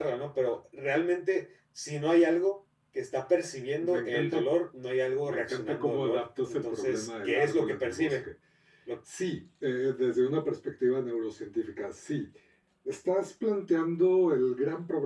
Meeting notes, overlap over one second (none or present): present